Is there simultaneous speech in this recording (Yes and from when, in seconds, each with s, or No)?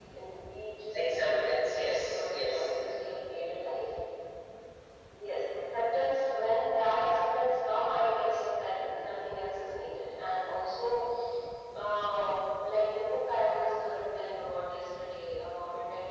Yes, from 0.9 s